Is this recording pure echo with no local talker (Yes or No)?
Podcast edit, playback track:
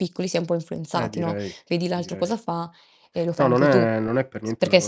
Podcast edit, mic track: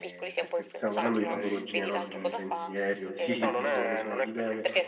No